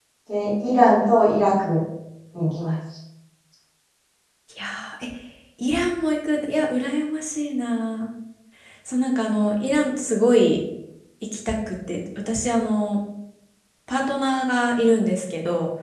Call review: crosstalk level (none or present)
none